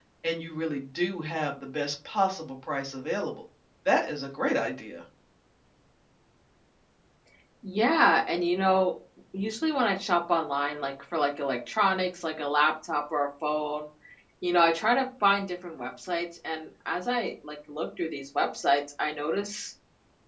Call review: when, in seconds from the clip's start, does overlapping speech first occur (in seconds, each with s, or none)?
none